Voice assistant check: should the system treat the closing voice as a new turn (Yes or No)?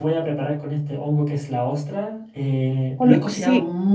No